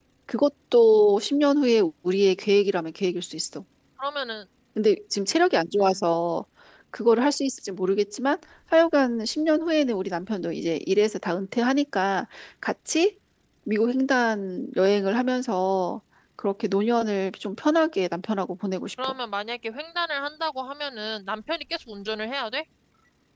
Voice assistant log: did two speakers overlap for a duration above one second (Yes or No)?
No